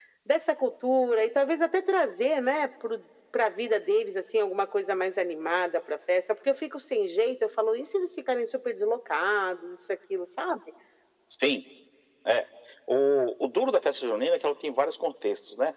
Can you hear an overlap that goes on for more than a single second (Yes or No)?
No